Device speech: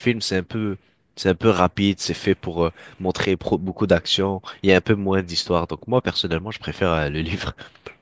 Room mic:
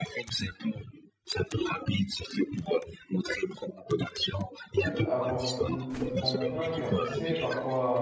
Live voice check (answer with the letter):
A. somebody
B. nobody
A